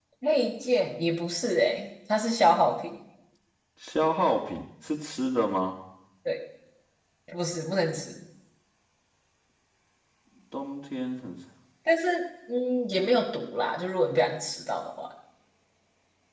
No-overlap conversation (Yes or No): Yes